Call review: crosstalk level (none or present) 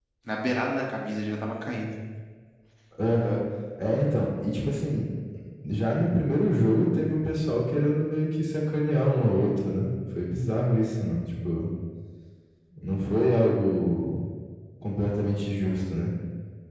none